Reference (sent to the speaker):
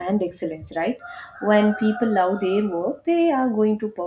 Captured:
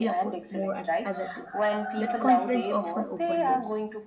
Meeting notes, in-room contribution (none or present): present